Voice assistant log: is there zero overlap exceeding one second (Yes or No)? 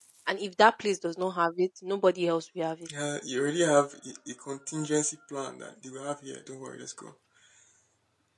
Yes